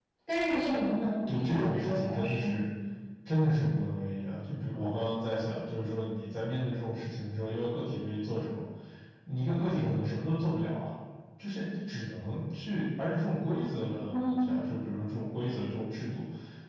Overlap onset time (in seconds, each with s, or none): 1.3 s